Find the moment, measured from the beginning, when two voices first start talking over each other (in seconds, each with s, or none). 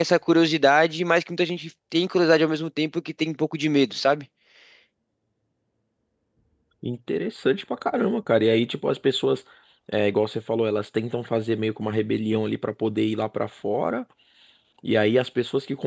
none